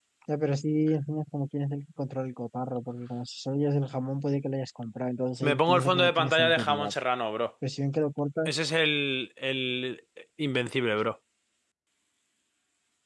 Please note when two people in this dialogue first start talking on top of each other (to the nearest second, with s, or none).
5 s